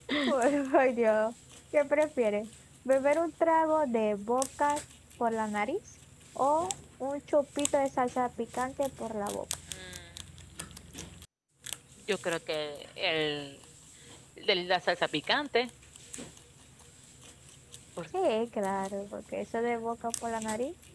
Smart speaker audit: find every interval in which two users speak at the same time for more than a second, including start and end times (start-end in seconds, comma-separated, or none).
none